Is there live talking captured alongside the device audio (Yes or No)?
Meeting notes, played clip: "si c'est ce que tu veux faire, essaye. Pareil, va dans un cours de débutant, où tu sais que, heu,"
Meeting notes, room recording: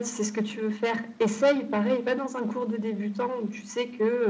No